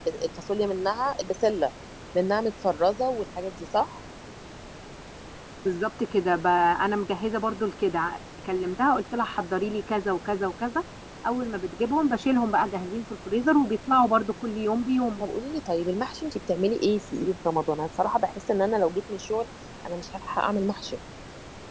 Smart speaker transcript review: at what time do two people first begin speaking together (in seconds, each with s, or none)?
none